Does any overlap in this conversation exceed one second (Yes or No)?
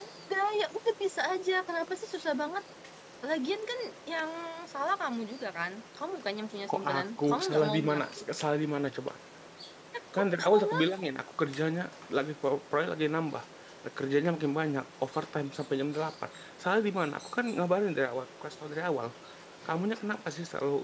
Yes